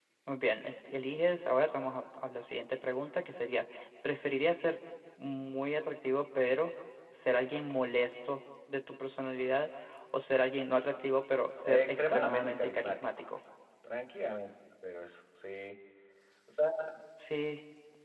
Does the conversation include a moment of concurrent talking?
Yes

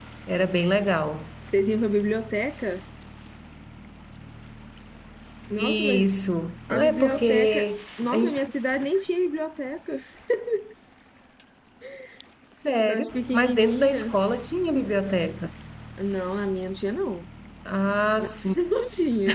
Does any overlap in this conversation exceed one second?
Yes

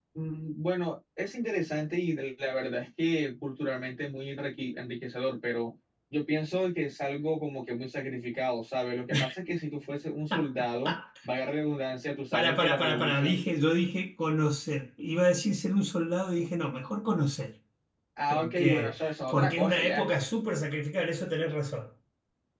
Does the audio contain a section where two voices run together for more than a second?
Yes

